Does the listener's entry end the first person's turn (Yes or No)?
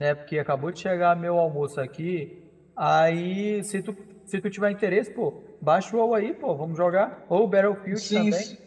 Yes